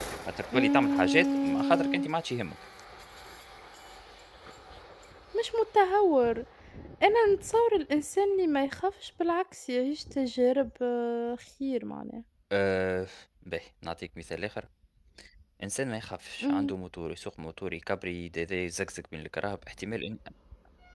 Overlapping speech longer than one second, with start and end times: 0.5-2.1

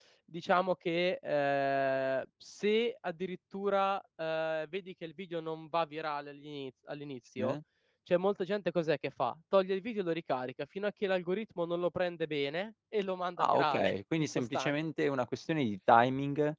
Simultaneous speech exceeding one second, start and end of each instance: 13.4-14.8

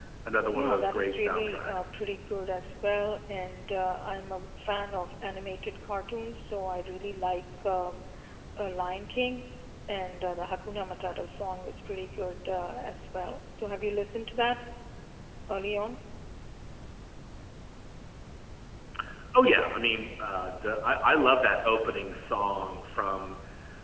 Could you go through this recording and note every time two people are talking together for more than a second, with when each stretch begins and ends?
0.5-1.8

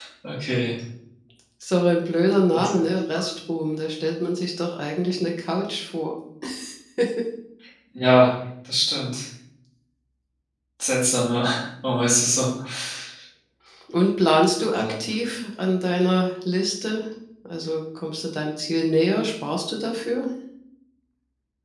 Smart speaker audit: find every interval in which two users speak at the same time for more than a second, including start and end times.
none

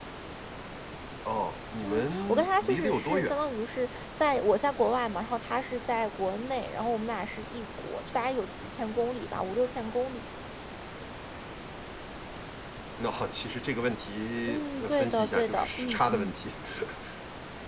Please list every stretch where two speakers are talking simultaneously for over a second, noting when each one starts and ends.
1.8-3.3, 14.5-16.3

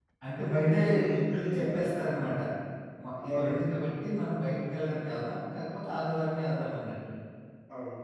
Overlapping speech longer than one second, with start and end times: 0.5-1.8

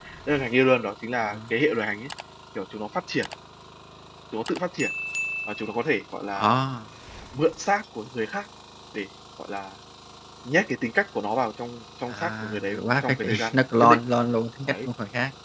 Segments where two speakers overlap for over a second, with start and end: 12.1-14.0

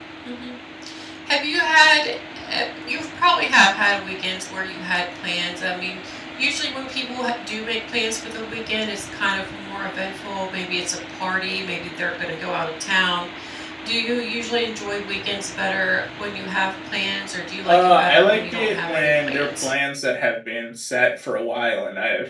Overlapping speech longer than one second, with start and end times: 17.6-19.7

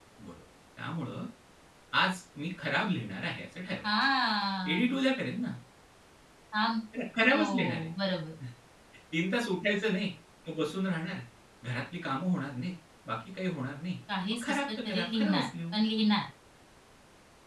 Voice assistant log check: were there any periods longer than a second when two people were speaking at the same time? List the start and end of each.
14.3-15.7

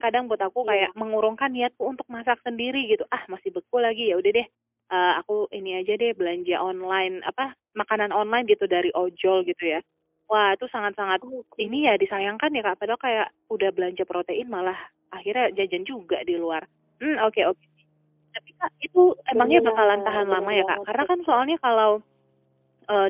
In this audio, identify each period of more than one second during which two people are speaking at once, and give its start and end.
19.4-21.4

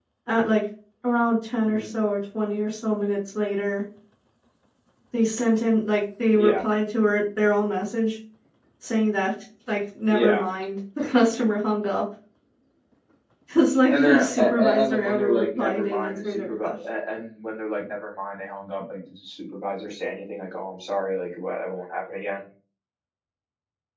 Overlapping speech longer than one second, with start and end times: 13.9-16.7

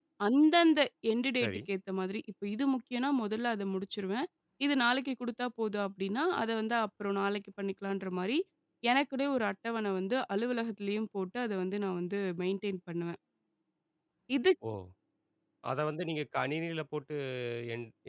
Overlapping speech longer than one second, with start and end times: none

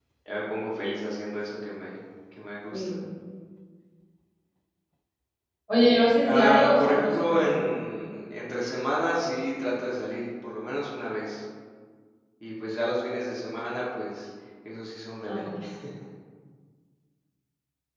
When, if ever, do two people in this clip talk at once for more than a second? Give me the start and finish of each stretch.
6.2-7.8

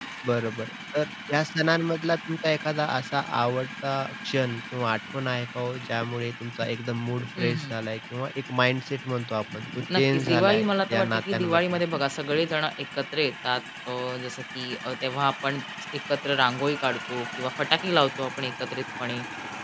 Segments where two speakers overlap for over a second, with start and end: 9.9-11.8

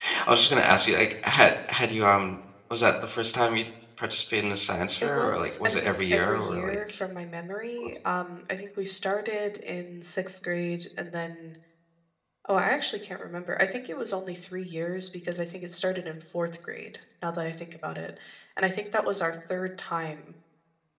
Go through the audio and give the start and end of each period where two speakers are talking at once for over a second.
5.0-7.0

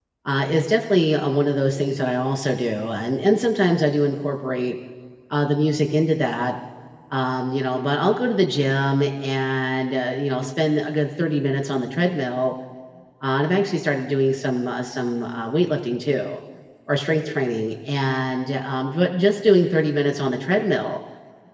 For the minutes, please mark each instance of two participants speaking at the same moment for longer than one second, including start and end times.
none

